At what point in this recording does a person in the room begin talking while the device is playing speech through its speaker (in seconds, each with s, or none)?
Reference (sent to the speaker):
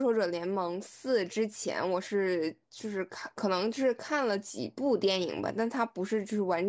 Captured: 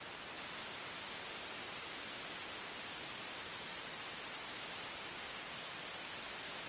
none